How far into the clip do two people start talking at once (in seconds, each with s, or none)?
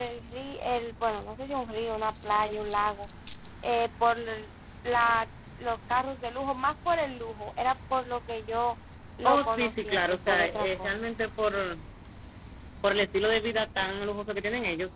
9.2 s